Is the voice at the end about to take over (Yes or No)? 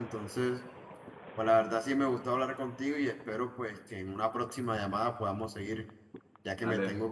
Yes